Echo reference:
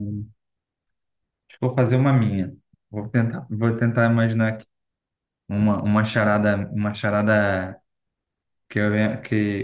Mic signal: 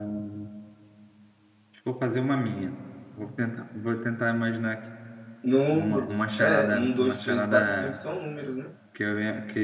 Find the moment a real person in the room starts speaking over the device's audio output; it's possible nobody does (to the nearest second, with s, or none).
5 s